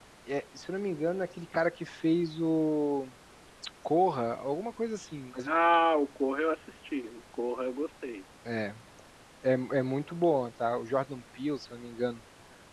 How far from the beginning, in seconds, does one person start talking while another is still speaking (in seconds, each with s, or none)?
none